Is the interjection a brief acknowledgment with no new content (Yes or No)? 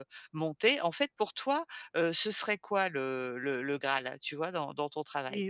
No